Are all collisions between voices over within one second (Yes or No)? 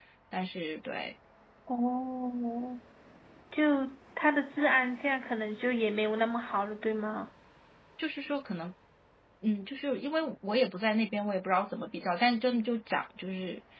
Yes